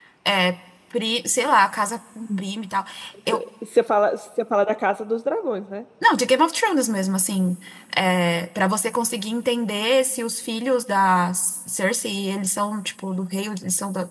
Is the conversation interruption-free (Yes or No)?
Yes